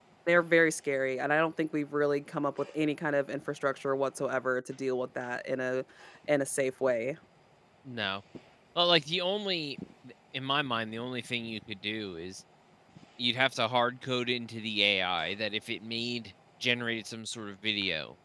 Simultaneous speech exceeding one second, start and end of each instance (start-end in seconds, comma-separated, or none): none